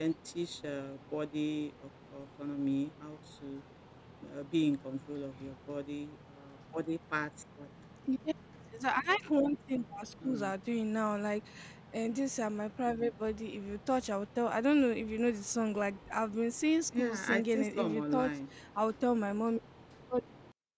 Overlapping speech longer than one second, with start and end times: 17.0-18.3

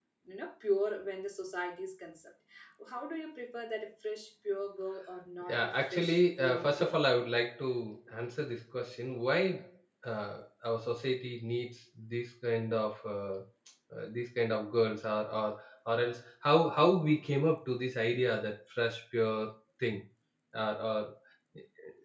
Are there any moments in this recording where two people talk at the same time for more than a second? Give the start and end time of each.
5.5-7.0

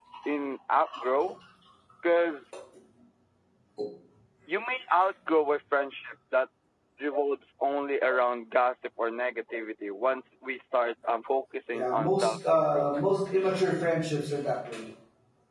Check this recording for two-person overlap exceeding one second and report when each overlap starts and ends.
11.7-13.1

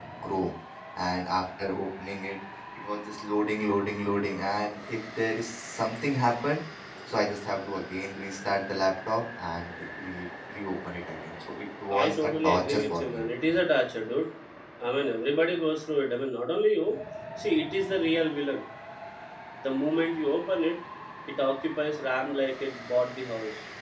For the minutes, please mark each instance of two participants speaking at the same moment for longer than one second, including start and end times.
11.9-13.2

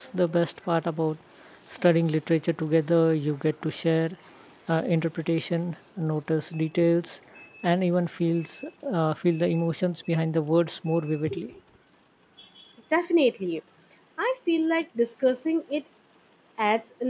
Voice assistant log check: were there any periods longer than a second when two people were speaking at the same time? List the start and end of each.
none

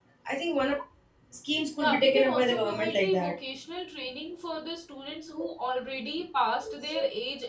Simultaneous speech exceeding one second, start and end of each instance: 1.8-3.3

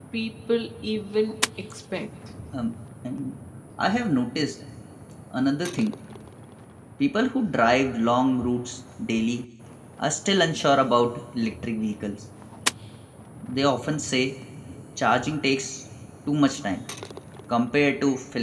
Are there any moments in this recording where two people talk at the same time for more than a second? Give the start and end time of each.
none

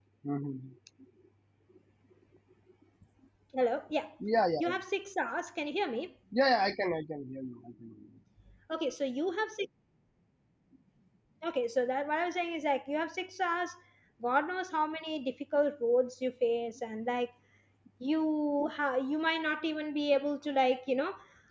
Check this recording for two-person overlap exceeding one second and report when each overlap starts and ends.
none

